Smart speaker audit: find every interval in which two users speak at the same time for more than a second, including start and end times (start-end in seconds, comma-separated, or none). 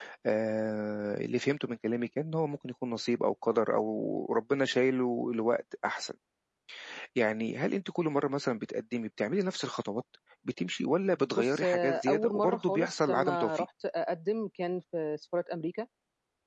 11.3-13.7